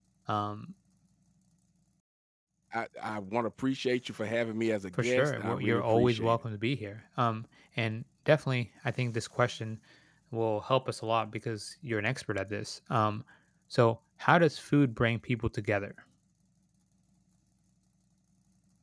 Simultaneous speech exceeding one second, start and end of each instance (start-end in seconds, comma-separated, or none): 4.9-6.3